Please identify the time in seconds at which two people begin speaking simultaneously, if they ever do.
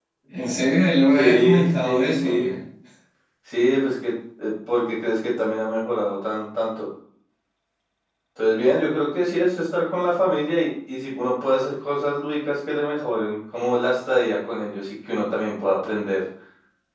1.1 s

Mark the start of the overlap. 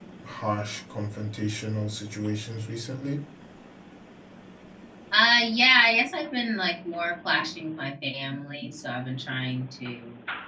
none

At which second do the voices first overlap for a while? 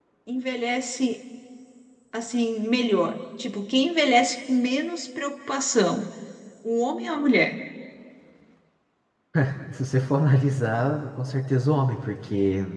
none

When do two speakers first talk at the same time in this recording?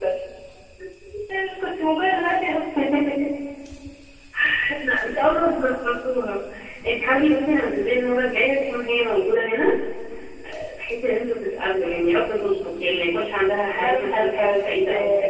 13.7 s

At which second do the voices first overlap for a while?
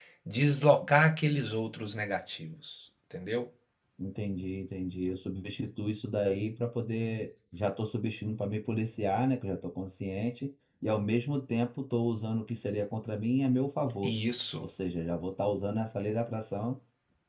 none

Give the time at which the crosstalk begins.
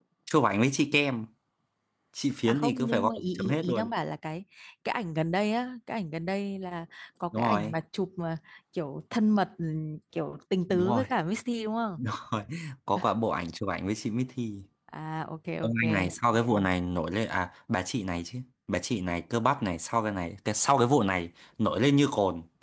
2.5 s

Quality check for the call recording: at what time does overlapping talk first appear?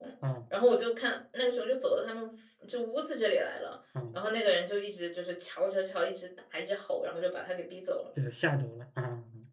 none

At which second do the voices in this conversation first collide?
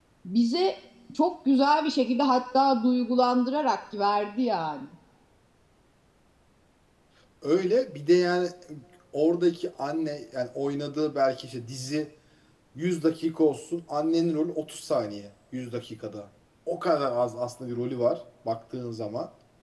none

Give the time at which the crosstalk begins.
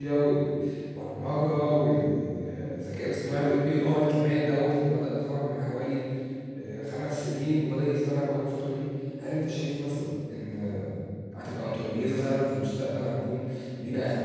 none

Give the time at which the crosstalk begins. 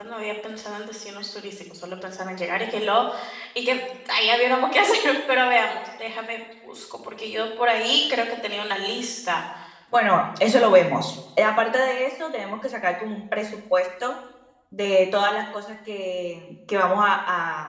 none

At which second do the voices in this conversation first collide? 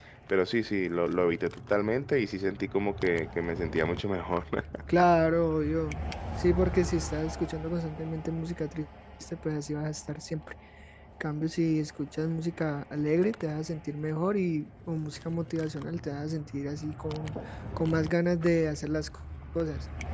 none

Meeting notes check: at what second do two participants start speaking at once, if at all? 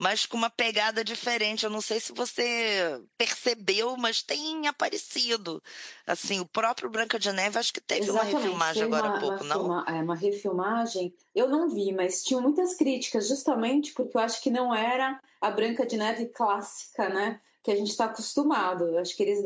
8.0 s

